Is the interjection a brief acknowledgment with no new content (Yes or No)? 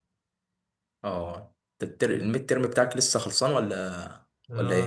No